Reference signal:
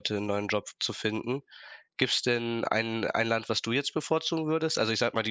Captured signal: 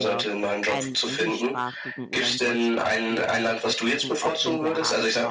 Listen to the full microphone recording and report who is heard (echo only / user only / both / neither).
both